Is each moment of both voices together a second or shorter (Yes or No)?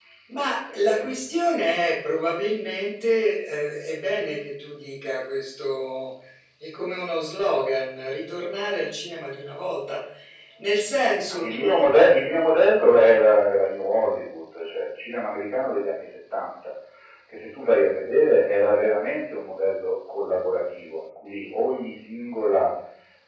Yes